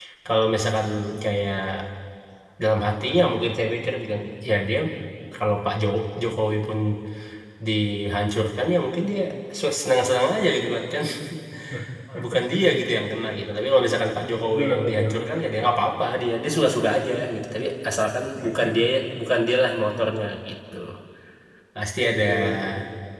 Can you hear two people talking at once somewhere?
Yes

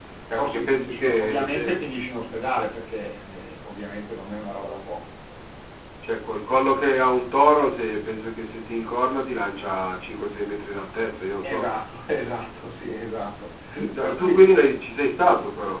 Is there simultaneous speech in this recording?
Yes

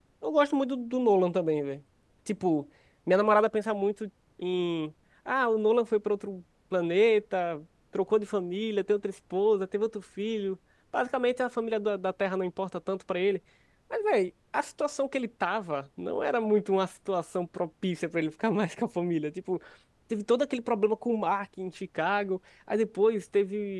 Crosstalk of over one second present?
No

